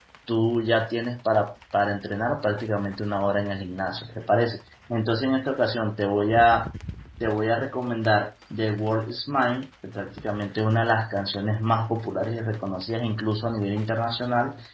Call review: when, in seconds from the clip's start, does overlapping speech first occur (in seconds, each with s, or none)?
none